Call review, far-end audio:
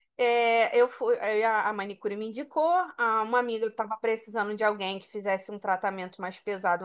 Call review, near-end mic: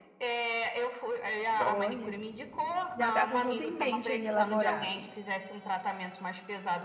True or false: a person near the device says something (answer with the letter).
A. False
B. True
B